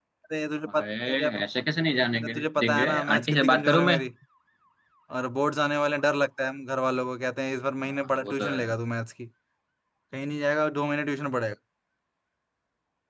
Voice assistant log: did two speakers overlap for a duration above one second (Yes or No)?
Yes